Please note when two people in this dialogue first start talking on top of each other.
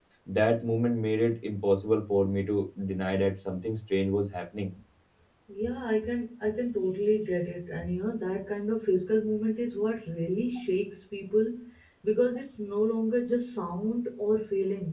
none

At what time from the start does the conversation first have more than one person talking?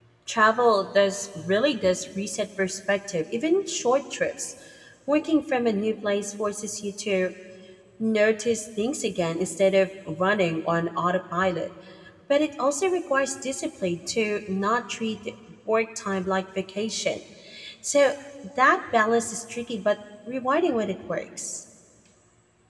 none

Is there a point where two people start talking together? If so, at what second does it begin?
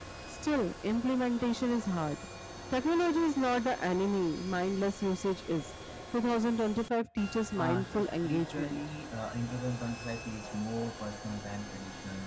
8 s

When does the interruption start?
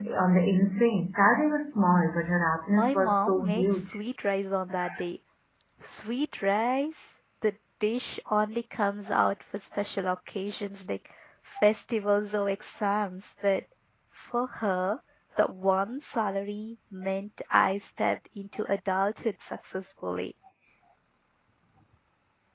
3 s

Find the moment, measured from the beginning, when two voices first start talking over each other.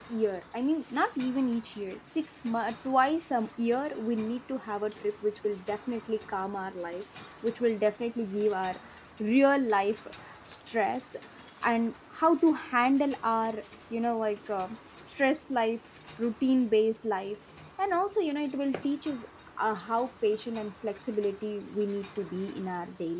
none

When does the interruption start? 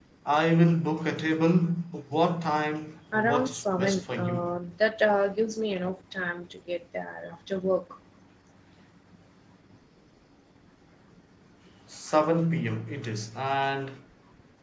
3 s

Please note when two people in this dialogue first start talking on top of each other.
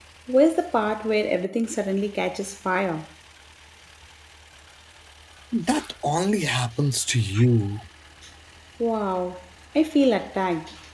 none

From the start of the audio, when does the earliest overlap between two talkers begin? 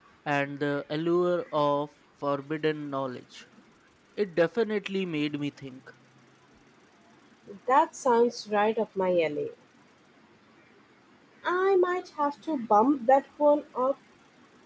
none

